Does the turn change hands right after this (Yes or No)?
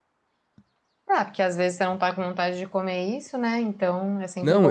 Yes